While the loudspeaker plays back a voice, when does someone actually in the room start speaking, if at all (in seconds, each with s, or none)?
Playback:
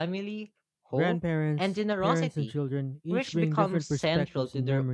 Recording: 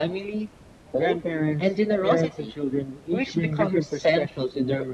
none